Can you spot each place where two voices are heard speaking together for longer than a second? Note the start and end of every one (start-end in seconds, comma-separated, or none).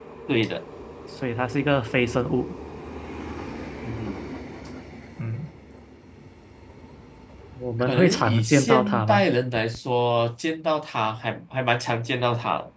7.8-9.3